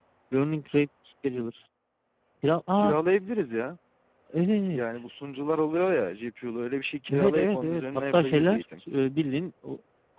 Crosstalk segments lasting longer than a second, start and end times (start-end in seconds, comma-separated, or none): 7.1-8.8